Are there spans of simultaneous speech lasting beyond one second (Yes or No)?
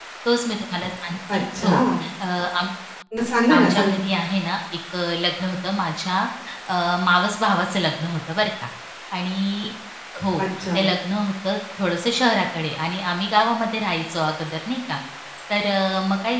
No